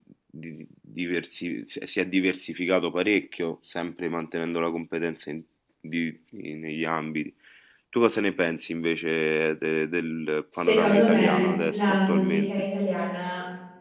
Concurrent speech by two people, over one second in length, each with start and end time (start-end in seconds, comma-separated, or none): 10.6-12.7